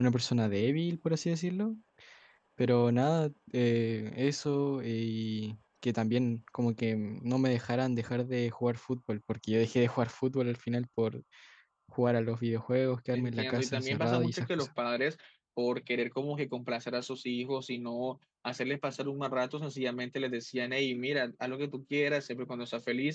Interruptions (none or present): present